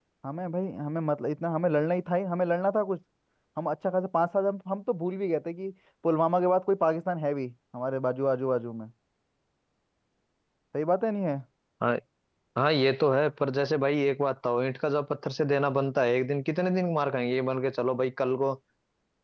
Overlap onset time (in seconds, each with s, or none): none